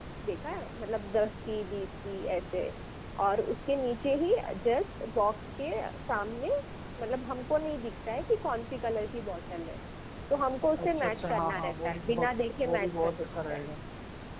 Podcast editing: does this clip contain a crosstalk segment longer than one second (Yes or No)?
Yes